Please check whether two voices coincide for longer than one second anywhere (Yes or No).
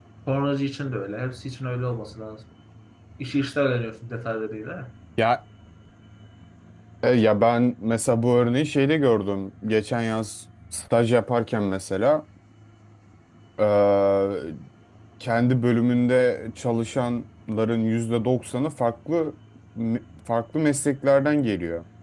No